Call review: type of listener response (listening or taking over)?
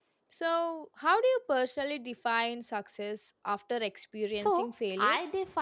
taking over